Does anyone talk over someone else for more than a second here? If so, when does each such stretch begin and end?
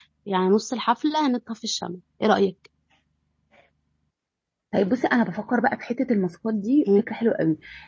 none

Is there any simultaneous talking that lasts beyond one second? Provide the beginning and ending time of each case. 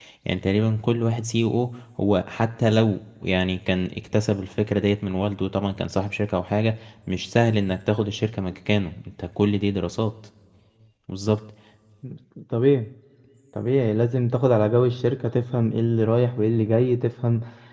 none

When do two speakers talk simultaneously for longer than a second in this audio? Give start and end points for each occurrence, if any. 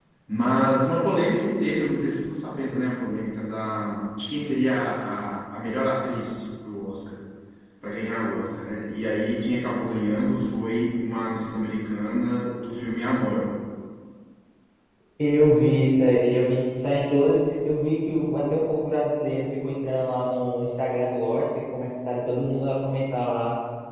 none

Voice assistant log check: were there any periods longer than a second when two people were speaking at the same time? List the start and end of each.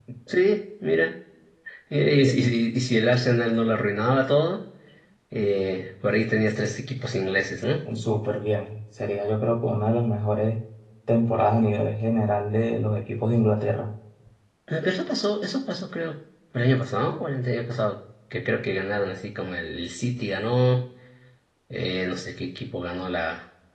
none

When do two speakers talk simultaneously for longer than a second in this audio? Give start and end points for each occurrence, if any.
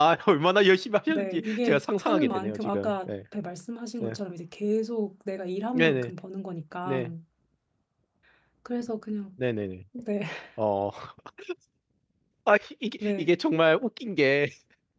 1.1-3.1

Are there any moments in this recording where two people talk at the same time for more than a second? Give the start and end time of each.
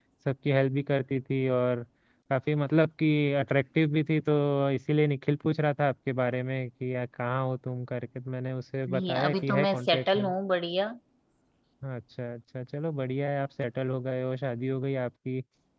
8.9-10.3

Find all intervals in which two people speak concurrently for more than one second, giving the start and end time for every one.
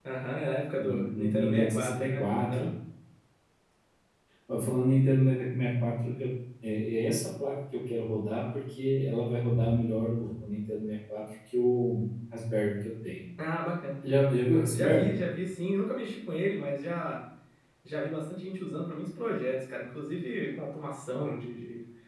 0.7-2.7

